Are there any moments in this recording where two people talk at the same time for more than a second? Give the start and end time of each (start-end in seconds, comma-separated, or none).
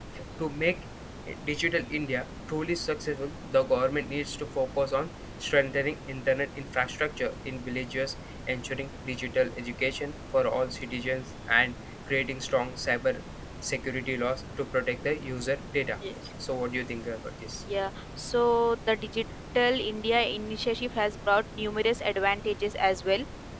none